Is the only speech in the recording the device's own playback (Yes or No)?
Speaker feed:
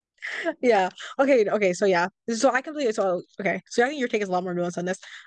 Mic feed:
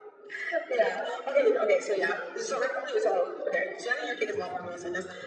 No